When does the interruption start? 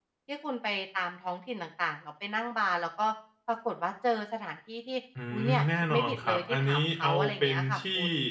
5.2 s

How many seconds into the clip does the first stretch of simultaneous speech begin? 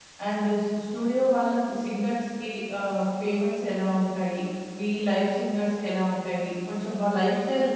none

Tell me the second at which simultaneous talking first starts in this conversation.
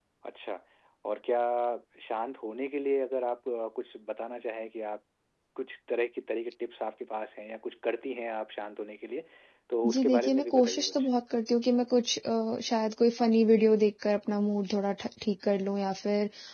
9.8 s

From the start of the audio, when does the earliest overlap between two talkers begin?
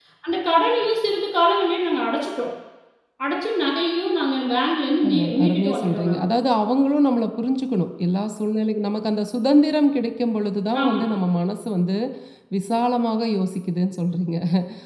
5.0 s

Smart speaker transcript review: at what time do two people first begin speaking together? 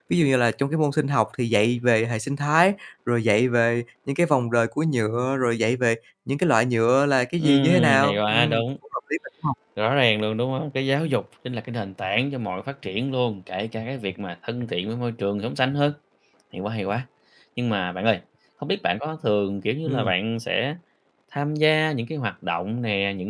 7.4 s

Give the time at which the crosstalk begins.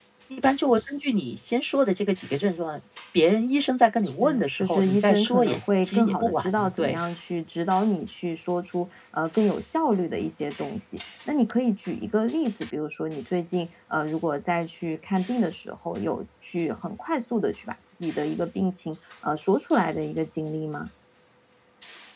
4.2 s

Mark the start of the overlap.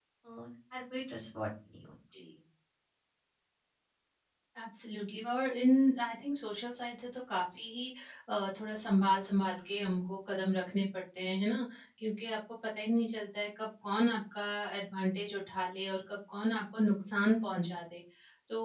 none

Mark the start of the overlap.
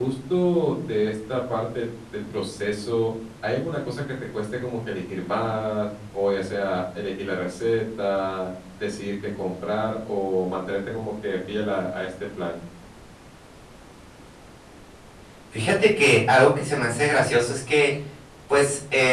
none

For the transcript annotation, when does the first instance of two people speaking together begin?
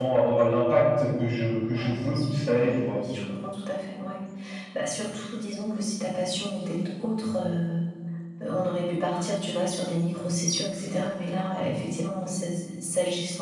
1.6 s

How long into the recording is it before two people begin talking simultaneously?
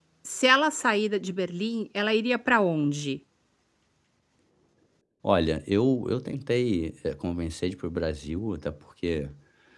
none

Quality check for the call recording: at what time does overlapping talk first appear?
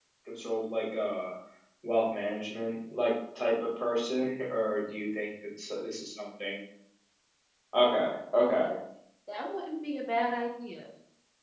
none

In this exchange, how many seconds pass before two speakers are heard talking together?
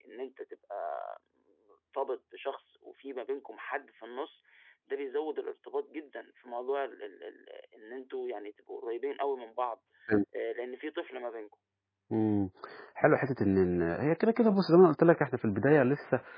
none

